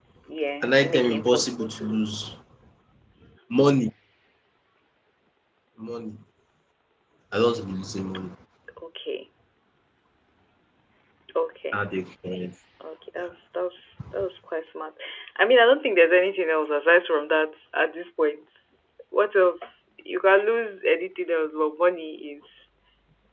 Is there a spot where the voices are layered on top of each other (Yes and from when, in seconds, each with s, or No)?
Yes, from 0.6 s